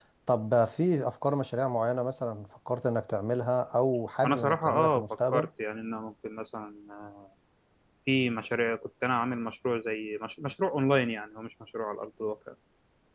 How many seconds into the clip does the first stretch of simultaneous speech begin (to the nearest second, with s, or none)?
4 s